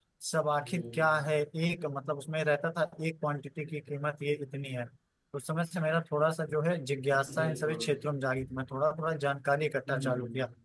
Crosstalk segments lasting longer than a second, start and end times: none

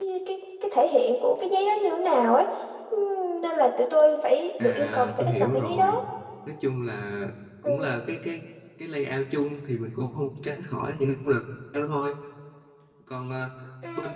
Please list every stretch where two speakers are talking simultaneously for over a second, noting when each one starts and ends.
4.6-6.0

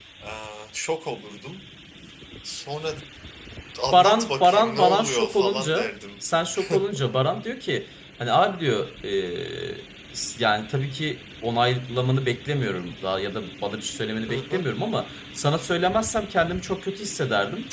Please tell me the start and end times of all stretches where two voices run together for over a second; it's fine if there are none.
3.9-5.9

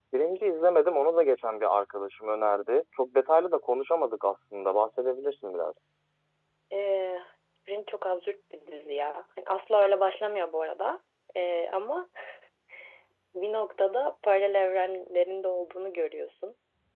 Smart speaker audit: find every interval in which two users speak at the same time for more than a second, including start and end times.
none

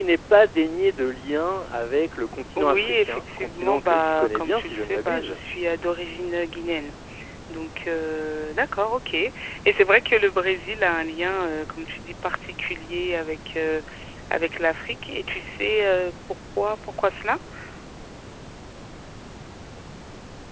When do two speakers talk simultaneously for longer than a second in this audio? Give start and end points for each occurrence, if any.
2.6-5.4

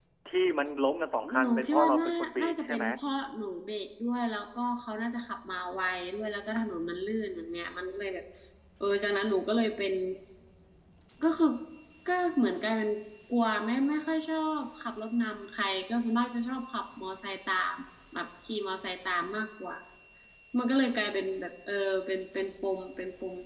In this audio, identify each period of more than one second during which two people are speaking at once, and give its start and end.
1.4-2.8

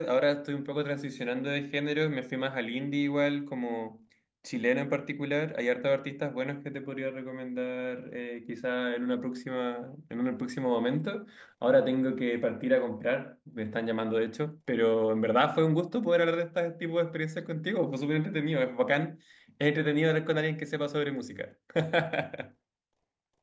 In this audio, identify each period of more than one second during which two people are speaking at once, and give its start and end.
none

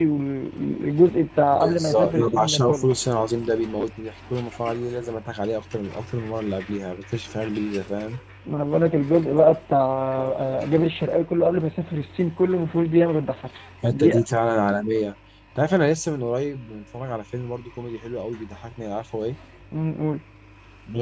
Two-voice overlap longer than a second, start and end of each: 1.5-2.9

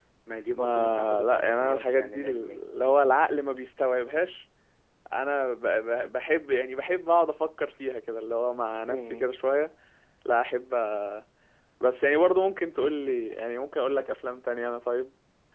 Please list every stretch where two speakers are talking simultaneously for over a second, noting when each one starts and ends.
0.5-2.6

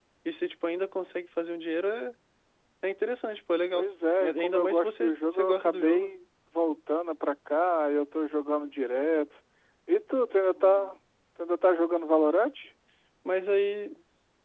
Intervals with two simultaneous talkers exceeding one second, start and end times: 4.2-6.1

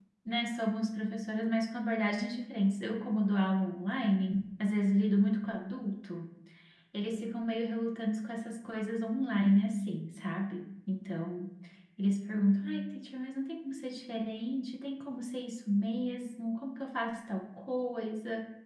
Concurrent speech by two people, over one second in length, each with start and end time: none

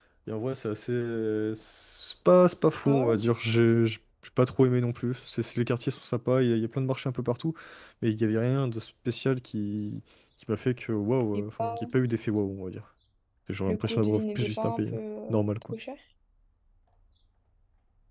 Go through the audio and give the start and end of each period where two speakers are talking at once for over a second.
13.7-14.9

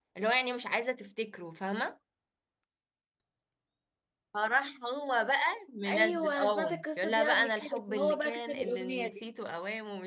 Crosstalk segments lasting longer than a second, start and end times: 5.9-9.2

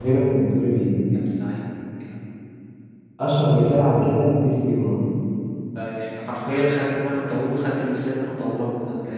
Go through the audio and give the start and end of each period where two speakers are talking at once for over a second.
none

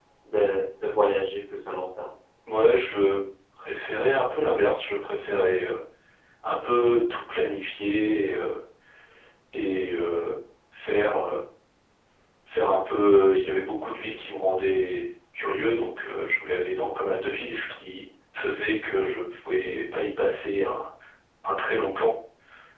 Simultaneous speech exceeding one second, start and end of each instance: none

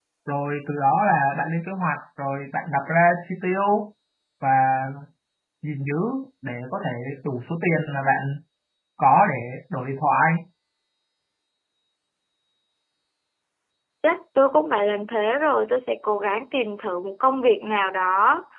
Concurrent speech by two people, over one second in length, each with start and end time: none

